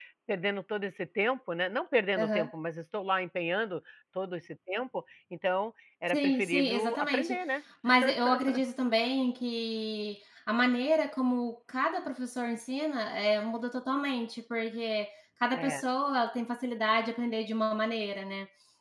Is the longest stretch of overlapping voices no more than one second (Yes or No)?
No